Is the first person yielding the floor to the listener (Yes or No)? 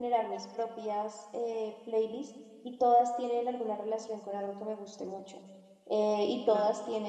No